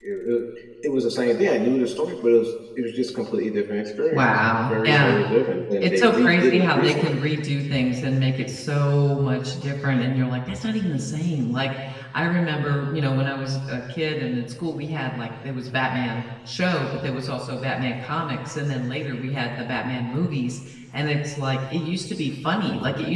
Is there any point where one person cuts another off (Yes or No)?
Yes